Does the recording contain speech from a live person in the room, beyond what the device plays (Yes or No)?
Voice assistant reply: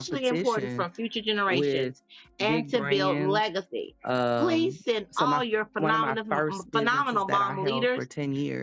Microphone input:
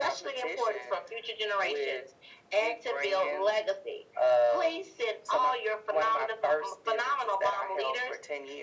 No